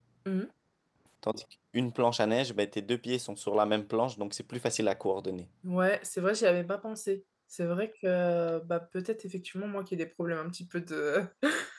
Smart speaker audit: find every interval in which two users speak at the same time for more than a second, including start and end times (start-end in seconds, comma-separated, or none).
none